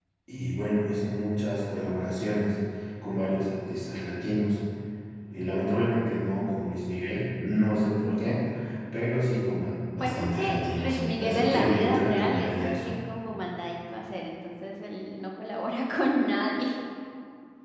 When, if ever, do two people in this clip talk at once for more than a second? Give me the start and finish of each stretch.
10.0-13.0

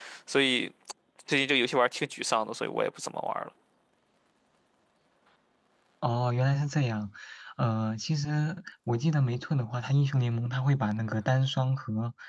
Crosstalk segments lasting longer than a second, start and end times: none

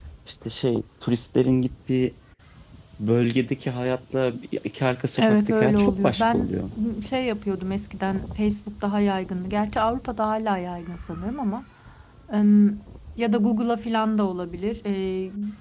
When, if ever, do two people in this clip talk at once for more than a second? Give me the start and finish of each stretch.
5.2-6.5

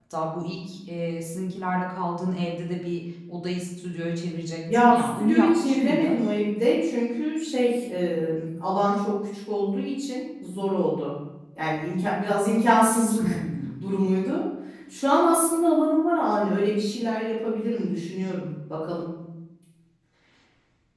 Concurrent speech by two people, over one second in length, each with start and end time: 4.7-6.2

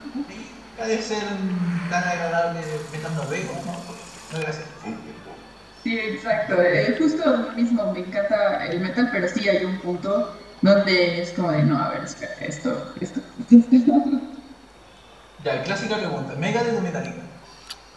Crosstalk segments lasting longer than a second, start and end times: none

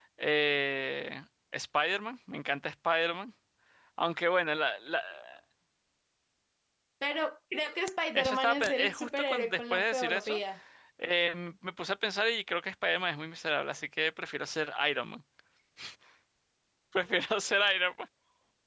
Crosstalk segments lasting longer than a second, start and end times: 8.2-10.4

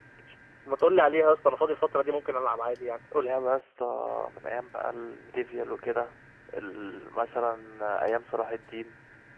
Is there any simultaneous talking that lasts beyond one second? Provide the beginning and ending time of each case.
none

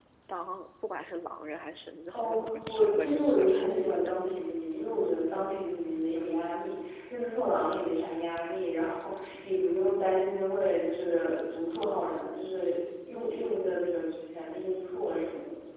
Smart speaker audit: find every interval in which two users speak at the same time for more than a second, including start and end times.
2.1-4.0

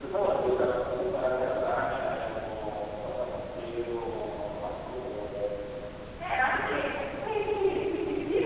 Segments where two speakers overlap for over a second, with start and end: none

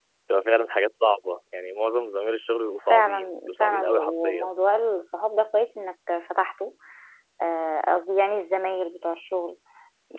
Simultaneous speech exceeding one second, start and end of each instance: 2.9-4.5

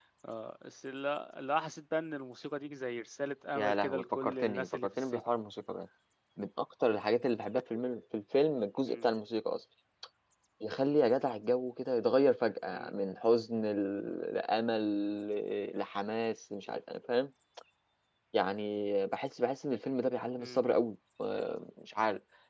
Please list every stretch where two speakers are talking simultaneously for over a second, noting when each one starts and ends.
3.5-5.3

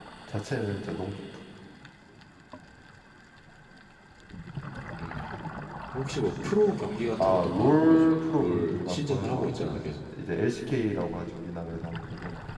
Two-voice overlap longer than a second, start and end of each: 7.2-9.8

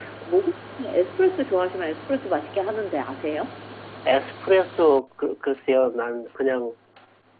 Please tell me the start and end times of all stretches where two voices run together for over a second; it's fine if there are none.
none

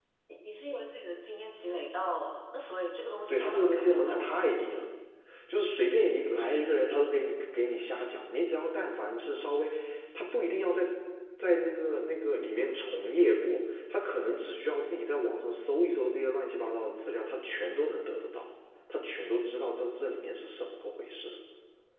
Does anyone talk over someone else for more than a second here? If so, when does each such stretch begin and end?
3.3-4.6

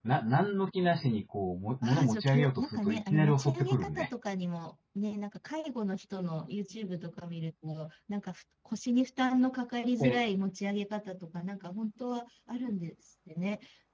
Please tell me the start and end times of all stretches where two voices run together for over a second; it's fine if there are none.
1.8-4.1

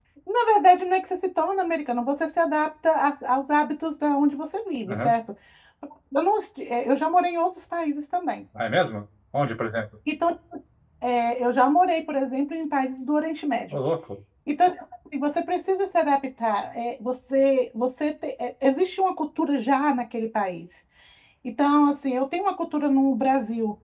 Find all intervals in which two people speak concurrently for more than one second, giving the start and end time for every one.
none

